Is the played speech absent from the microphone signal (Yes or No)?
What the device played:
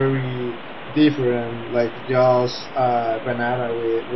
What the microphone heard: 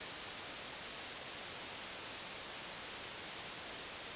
Yes